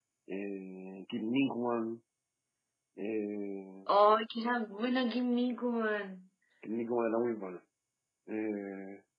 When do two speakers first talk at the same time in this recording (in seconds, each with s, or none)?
none